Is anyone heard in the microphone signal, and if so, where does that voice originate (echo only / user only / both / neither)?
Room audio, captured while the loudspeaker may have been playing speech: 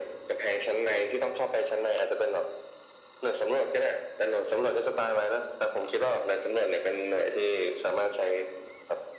echo only